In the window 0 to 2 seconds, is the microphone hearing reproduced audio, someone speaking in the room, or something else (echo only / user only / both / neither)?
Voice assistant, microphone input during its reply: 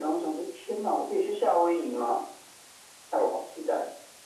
echo only